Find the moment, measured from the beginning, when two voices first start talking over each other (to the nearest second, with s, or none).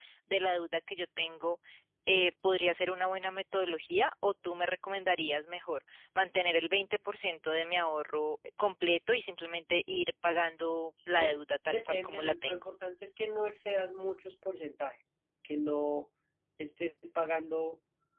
11 s